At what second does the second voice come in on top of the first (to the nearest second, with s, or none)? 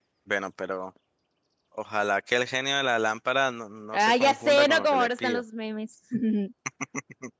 4 s